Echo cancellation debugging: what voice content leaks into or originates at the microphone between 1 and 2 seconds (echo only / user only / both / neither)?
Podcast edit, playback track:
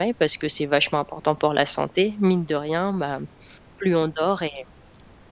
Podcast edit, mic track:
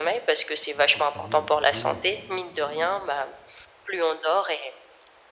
both